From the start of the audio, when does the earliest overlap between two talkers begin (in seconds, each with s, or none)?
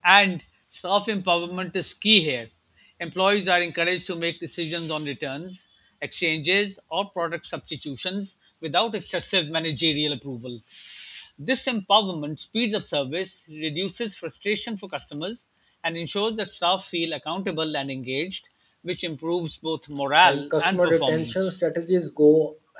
20.2 s